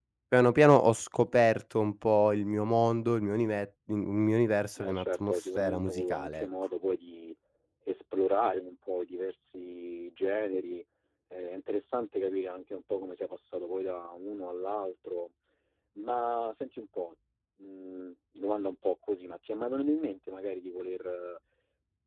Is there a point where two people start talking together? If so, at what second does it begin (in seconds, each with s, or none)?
4.8 s